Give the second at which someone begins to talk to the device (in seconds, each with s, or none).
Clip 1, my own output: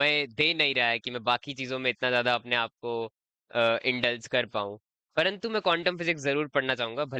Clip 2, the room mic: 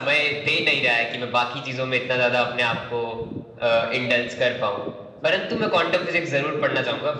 none